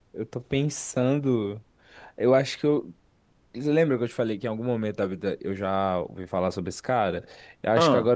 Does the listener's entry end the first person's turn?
No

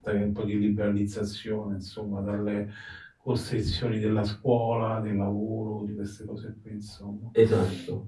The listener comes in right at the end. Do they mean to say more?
No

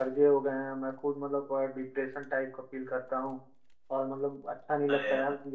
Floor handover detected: No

